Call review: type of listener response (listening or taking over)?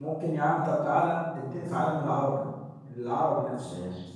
taking over